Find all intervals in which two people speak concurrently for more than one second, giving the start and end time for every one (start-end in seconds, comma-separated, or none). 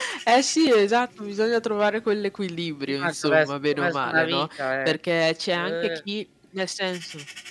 2.9-5.0